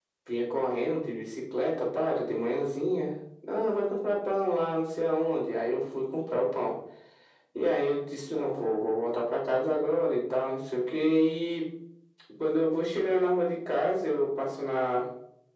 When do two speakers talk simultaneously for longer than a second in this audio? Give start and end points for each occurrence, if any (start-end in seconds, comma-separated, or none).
none